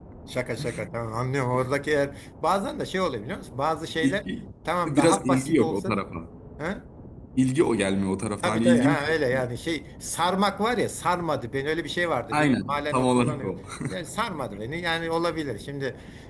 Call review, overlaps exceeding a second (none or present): present